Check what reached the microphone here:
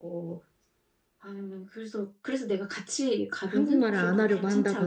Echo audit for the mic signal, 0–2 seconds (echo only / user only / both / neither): echo only